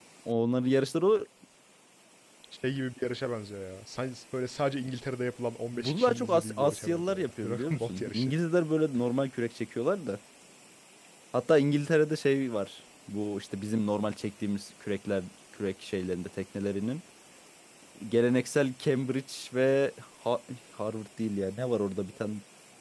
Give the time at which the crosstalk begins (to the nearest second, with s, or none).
6 s